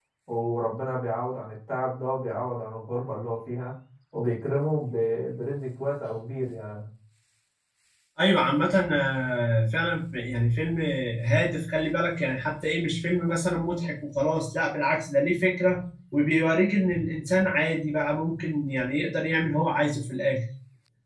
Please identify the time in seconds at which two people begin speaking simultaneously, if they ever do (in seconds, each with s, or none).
none